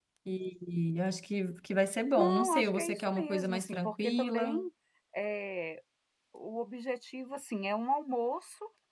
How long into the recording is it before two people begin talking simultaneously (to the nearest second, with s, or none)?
2 s